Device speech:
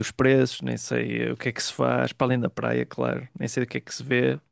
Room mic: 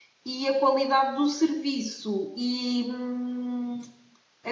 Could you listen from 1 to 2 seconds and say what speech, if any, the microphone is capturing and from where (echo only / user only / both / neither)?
user only